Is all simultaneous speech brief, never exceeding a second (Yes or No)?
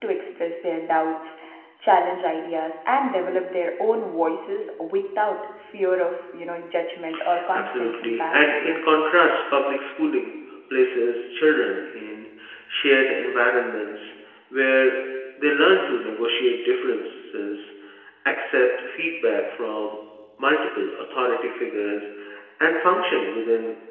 No